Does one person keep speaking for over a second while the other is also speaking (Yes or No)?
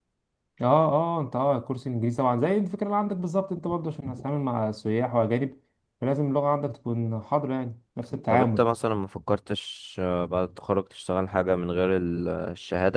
No